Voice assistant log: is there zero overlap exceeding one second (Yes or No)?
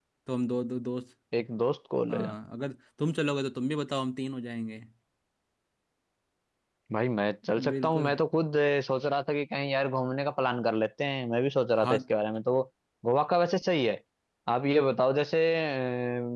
Yes